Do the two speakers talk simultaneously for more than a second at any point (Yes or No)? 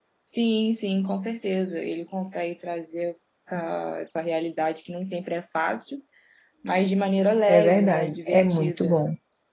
Yes